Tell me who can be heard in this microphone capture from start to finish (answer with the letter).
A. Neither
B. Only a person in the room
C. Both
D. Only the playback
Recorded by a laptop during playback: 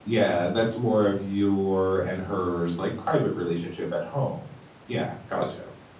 B